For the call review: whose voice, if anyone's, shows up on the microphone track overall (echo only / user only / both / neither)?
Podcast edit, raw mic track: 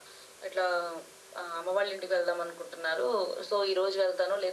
echo only